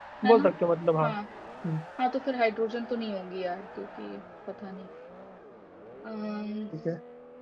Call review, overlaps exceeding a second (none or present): none